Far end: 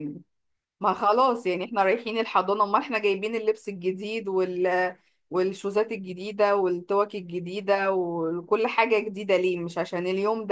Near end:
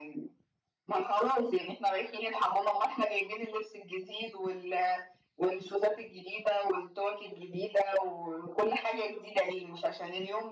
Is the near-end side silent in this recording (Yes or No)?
Yes